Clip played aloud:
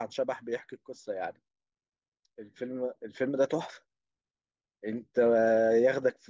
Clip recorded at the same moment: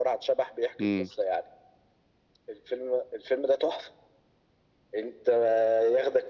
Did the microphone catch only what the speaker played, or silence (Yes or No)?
No